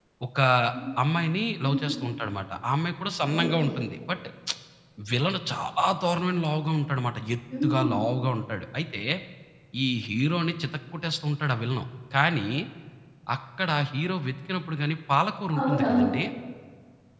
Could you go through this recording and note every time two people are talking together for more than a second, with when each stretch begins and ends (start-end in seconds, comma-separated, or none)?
none